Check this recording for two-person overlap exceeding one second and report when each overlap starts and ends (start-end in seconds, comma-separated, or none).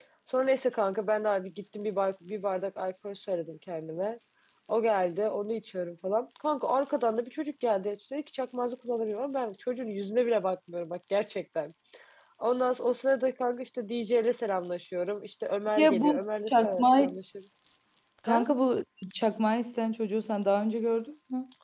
15.8-17.2